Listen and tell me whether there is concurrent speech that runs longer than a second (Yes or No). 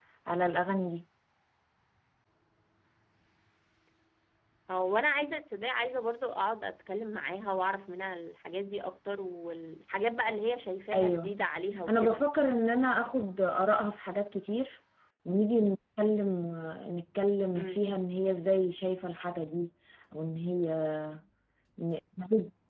No